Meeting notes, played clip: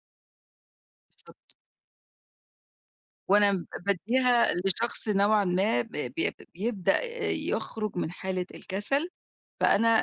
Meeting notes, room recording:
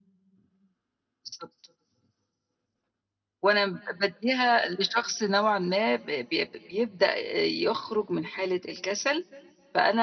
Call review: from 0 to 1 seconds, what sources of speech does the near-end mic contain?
neither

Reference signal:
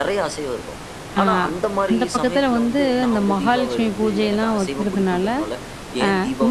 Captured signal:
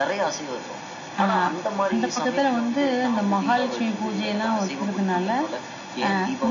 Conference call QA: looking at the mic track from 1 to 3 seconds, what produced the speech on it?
echo only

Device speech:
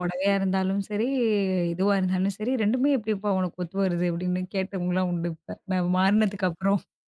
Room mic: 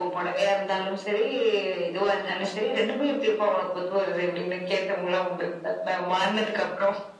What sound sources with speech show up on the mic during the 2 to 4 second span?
echo only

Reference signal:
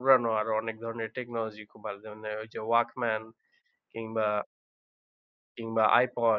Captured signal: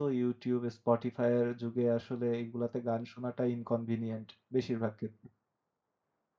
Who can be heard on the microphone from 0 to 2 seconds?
user only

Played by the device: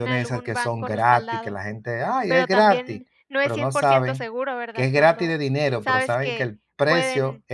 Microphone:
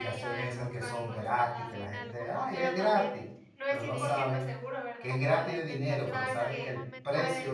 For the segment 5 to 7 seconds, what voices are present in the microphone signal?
both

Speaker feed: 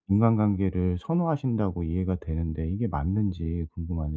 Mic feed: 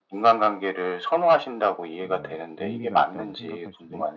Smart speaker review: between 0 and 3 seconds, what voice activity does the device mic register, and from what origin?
both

